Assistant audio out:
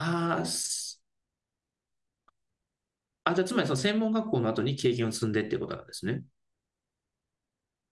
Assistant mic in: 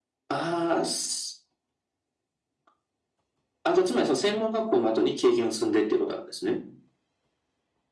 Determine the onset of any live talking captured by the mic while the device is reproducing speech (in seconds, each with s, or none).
none